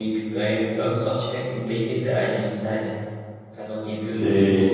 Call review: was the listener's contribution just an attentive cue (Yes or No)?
Yes